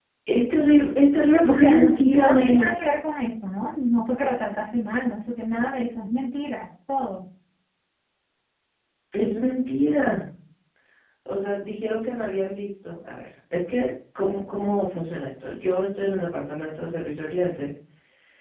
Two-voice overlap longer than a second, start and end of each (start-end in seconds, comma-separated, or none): 1.4-2.7